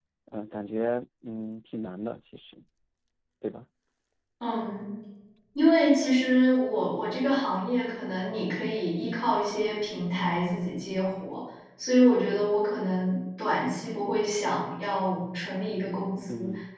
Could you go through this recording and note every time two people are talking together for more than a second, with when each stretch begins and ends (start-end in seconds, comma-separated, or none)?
none